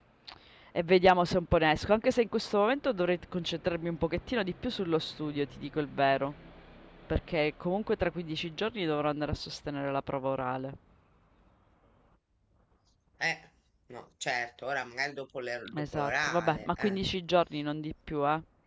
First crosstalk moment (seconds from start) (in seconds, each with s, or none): 15.7 s